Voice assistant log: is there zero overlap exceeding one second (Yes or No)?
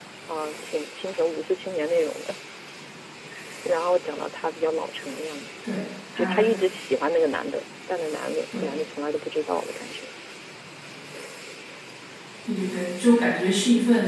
Yes